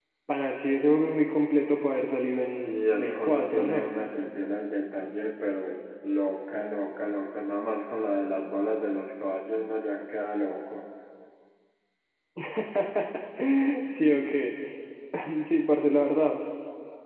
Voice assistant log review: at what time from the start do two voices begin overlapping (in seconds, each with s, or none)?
2.6 s